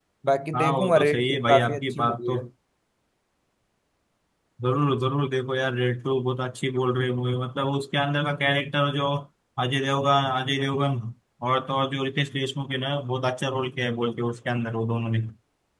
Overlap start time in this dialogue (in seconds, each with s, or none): 0.5 s